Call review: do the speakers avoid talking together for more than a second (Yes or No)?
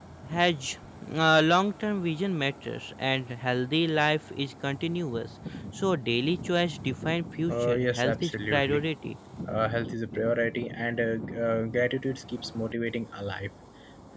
No